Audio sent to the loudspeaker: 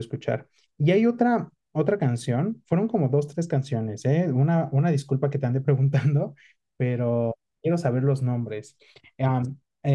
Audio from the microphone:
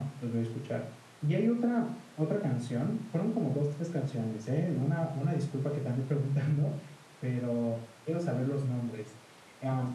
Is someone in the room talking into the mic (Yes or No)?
No